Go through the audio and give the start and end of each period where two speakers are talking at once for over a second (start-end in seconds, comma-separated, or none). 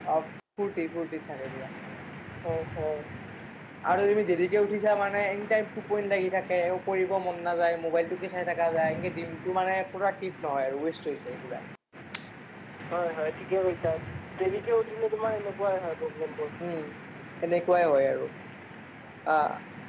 none